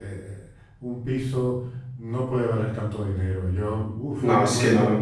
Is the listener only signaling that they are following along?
No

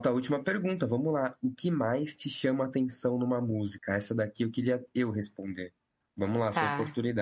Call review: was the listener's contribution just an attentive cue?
Yes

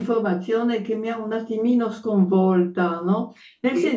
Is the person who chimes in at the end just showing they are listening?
Yes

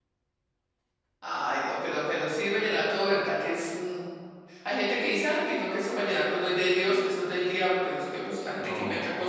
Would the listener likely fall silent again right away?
Yes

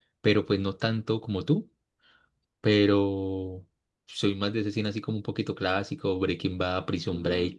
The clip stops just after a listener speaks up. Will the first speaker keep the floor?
No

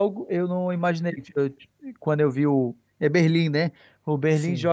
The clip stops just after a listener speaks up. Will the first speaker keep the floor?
Yes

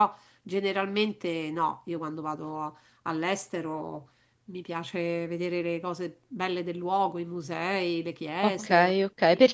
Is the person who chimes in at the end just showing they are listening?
No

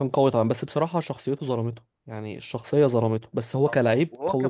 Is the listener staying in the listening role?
No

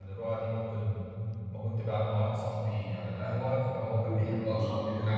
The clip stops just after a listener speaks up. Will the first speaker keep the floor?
Yes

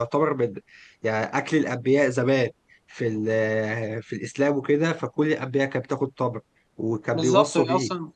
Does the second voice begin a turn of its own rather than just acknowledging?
Yes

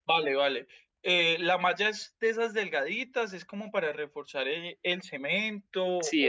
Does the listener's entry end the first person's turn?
Yes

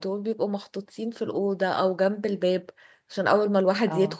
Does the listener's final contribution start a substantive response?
No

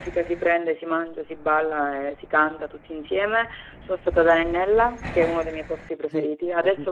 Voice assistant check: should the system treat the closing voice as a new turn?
No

